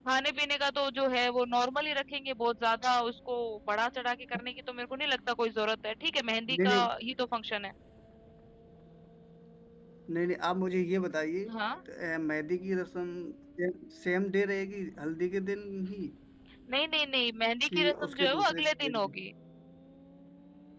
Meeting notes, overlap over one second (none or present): present